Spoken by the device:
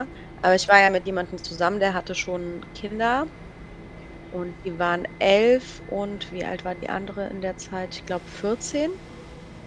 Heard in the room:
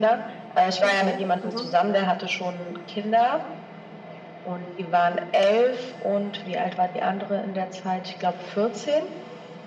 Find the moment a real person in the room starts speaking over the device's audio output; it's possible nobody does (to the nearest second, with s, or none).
1 s